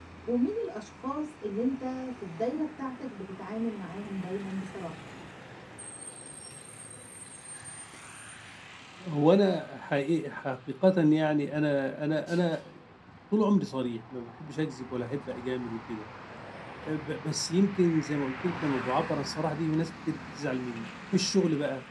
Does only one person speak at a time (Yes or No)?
Yes